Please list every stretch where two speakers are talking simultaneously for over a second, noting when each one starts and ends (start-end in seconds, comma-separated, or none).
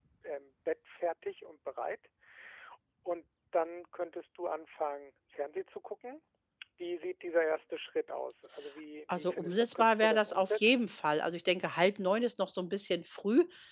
9.1-10.9